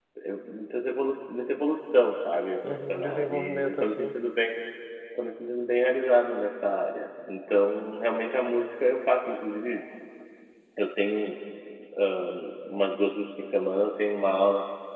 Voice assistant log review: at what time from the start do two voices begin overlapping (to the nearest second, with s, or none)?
3 s